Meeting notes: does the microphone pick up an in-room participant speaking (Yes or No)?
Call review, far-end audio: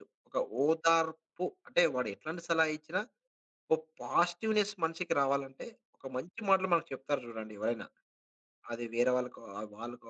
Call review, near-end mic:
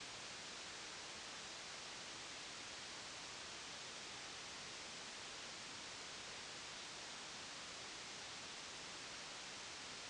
No